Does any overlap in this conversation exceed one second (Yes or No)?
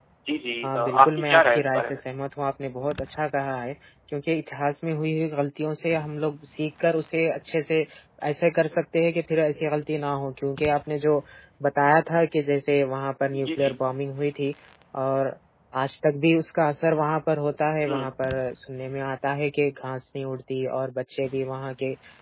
Yes